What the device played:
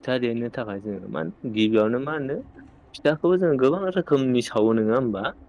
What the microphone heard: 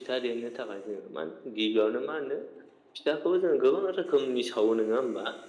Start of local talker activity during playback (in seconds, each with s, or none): none